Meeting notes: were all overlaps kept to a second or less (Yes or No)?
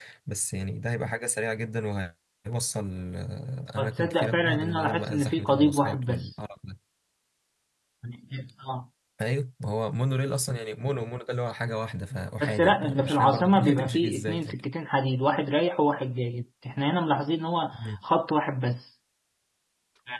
No